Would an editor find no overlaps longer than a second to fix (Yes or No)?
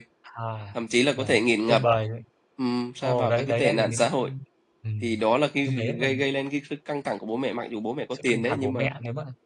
No